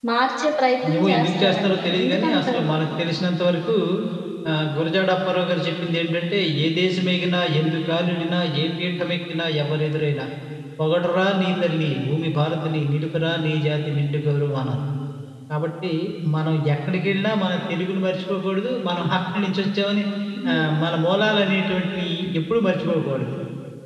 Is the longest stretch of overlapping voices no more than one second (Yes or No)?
No